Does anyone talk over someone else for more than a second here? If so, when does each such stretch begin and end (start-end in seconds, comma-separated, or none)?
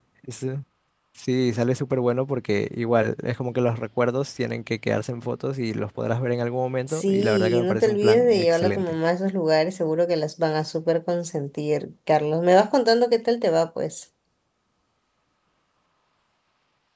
6.9-8.9